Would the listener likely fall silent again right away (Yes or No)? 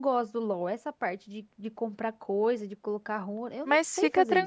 No